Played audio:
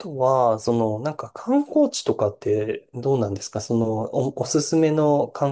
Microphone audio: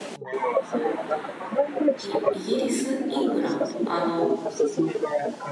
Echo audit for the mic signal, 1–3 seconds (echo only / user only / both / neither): both